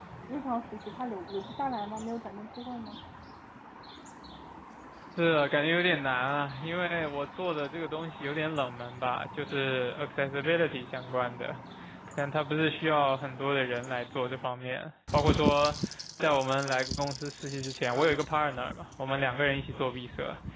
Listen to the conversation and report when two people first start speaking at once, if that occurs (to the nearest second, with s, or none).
none